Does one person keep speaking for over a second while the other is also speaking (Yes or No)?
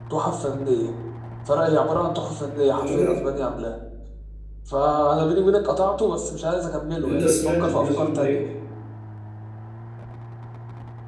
Yes